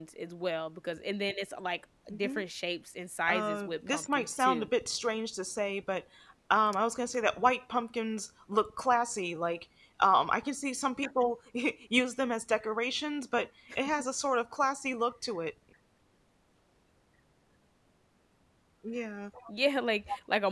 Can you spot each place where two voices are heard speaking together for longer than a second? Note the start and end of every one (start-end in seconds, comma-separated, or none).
3.3-4.7